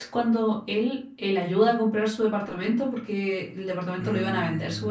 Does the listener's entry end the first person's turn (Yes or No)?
No